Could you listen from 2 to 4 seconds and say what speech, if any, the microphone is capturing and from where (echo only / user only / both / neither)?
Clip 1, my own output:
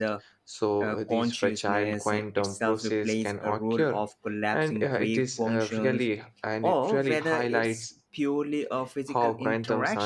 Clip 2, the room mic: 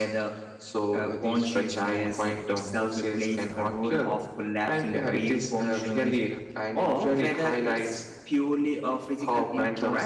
echo only